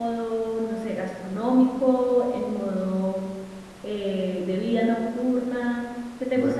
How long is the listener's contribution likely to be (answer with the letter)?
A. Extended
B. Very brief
A